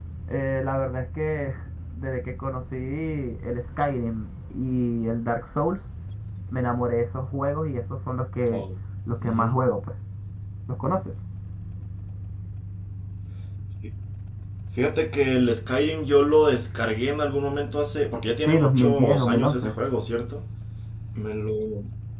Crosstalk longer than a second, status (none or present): present